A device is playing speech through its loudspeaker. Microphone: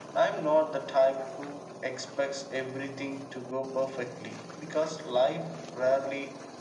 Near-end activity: none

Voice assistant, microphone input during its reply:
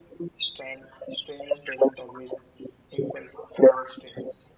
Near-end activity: none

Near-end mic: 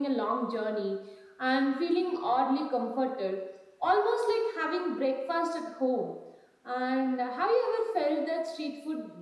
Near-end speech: none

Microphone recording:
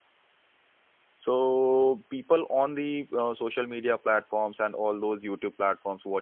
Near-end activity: present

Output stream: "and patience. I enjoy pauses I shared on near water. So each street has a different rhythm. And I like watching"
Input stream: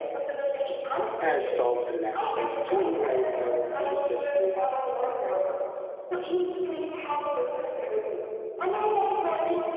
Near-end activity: present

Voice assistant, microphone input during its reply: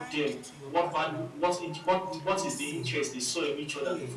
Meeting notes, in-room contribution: present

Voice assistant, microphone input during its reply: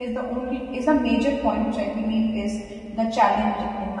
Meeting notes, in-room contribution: present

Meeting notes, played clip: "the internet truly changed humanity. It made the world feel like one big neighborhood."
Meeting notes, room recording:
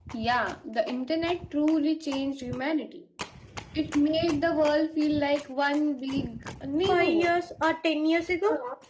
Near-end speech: present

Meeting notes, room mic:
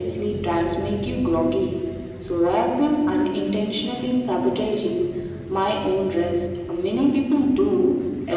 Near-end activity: none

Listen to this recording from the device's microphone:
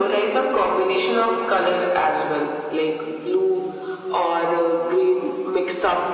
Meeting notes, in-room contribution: none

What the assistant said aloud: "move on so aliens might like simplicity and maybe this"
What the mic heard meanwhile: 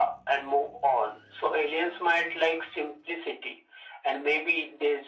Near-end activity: none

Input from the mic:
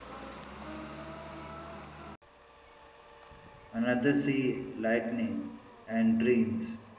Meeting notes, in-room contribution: present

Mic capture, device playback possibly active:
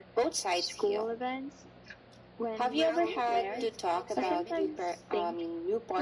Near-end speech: present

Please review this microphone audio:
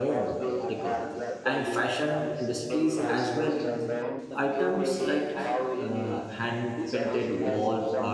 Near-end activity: present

